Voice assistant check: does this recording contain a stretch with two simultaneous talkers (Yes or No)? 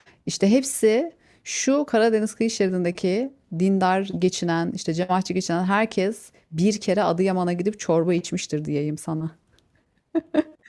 No